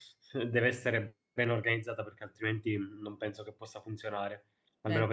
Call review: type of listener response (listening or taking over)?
listening